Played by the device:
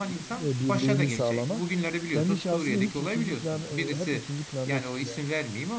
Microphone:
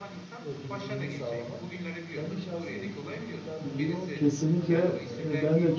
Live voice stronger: Yes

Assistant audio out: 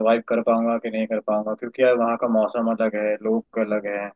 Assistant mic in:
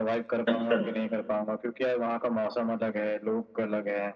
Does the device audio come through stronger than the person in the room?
No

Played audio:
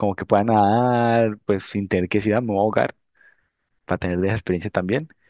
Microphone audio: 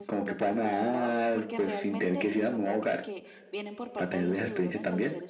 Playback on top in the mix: Yes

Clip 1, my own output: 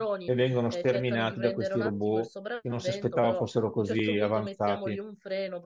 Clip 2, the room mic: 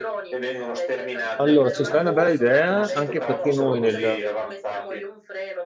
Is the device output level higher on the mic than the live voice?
No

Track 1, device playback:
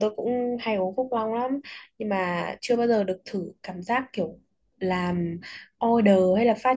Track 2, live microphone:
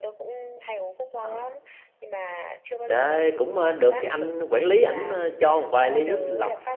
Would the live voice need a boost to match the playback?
No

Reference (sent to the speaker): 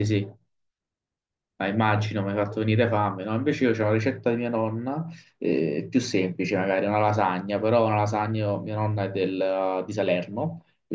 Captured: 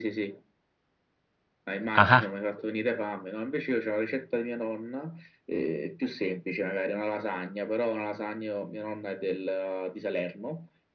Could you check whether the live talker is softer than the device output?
No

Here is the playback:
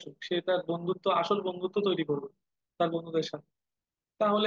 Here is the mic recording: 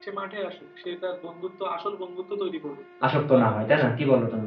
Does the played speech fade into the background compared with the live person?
Yes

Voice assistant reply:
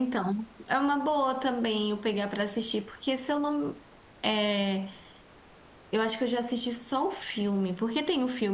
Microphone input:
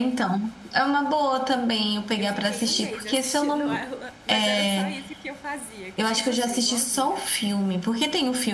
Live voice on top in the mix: No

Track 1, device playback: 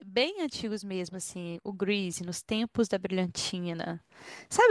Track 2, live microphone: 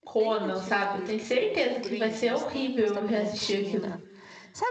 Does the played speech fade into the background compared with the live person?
Yes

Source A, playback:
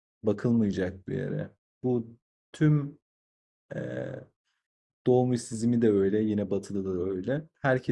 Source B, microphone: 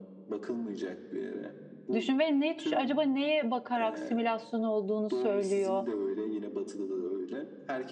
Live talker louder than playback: Yes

